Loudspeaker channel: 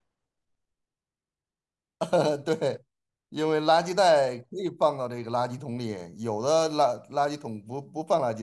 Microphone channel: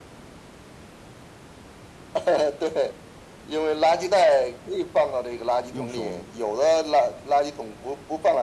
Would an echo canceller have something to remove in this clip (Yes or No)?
Yes